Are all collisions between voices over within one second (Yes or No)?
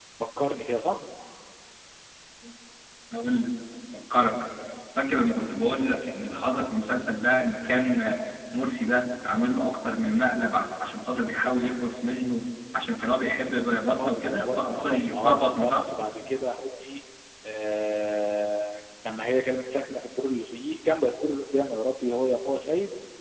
No